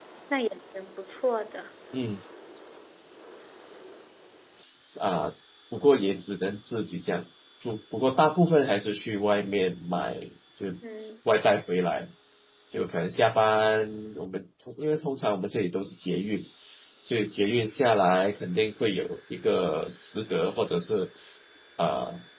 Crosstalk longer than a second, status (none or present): none